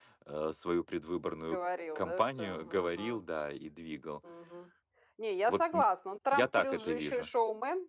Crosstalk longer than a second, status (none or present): present